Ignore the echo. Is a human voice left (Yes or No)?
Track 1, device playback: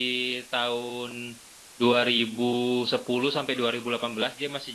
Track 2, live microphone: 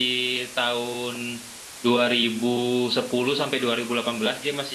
No